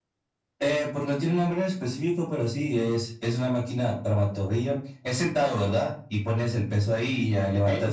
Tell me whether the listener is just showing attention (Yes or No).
No